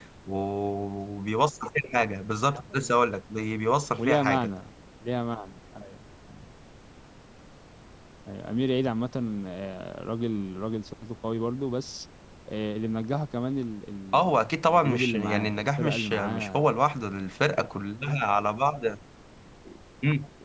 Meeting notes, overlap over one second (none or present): present